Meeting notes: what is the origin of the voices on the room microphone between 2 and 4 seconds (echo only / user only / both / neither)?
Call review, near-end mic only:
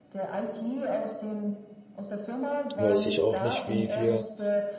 both